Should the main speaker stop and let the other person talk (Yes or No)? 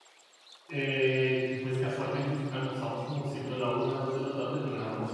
No